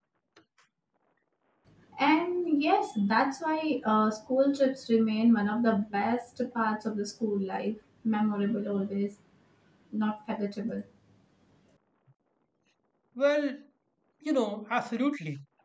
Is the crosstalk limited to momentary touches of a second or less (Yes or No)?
Yes